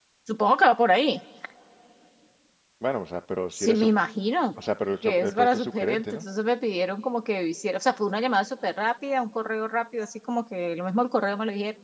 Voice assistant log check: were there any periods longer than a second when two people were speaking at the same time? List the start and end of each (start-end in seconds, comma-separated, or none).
5.0-6.2